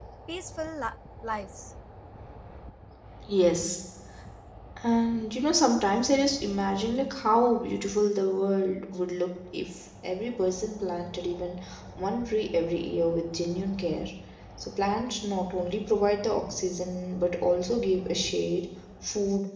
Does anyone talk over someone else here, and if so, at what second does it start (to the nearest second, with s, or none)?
none